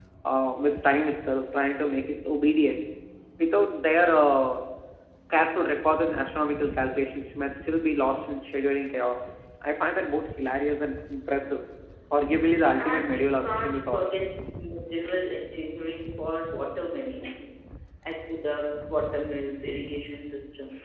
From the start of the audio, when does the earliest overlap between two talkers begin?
12.8 s

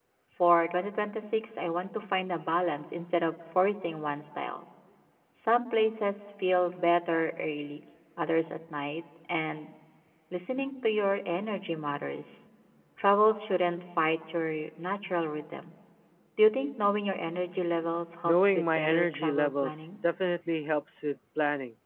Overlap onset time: 18.2 s

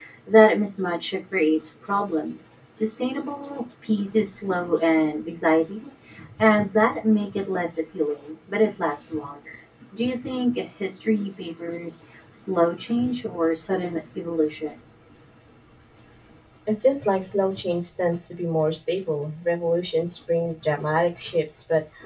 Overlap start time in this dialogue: none

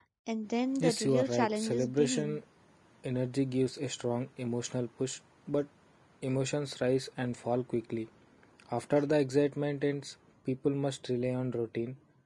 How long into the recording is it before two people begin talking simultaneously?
0.8 s

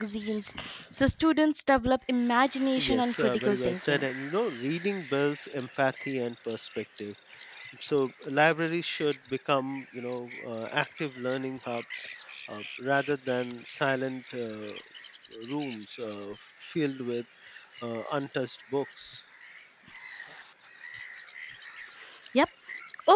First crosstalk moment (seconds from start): 2.8 s

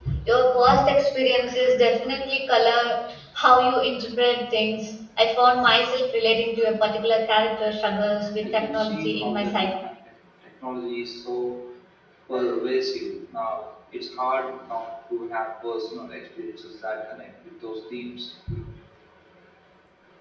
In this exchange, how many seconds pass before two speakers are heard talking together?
8.4 s

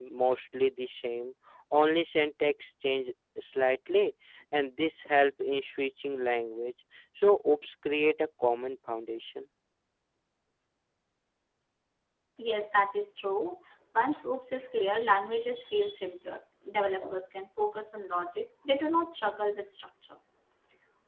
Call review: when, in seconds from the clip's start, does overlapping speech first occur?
none

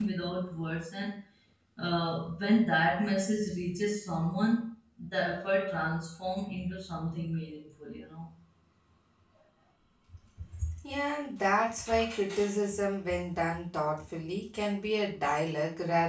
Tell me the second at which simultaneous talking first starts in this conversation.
none

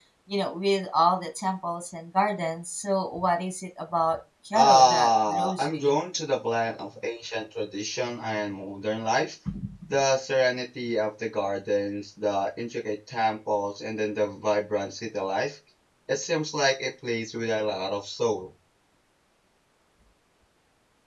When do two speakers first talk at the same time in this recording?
4.6 s

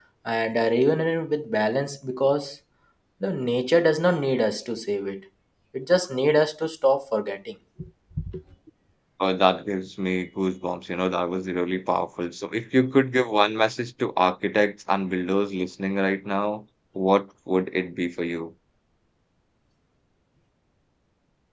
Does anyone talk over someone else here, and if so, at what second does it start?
none

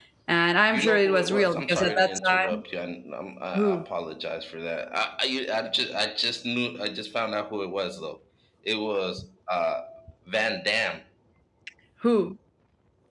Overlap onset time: 0.7 s

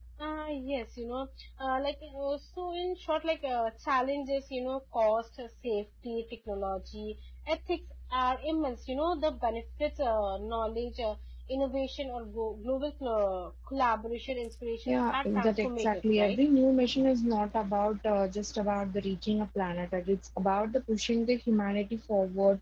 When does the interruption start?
14.9 s

